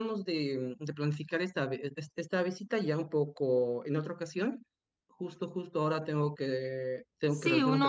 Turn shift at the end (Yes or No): Yes